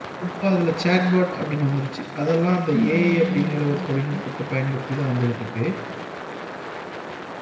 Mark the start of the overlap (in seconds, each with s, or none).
2.7 s